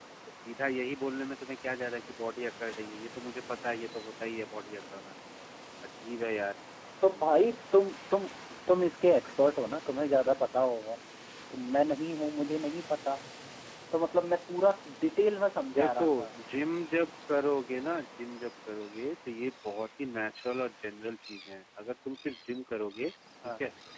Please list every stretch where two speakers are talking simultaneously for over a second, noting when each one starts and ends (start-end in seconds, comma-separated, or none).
none